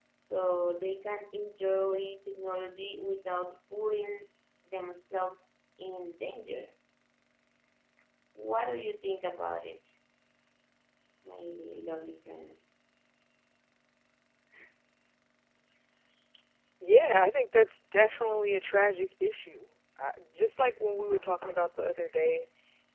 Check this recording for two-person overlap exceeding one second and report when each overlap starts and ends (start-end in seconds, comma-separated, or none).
none